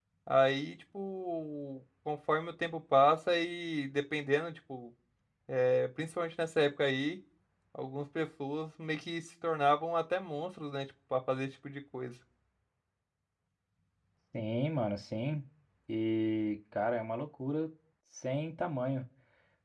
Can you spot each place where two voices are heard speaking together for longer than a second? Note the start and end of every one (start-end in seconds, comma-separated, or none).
none